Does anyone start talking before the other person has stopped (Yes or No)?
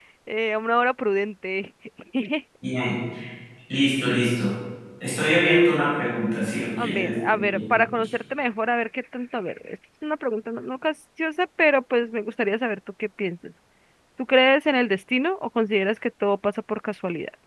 Yes